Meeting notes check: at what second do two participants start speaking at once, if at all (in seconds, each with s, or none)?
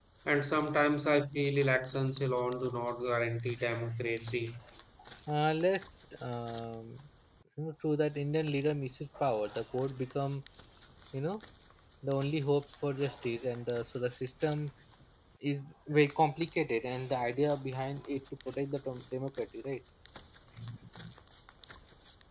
none